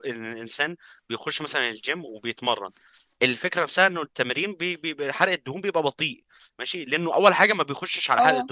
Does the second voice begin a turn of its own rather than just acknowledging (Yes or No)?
No